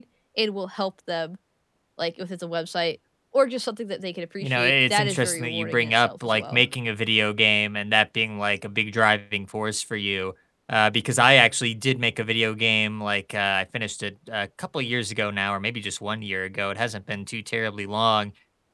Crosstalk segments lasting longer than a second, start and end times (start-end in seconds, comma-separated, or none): 4.4-6.6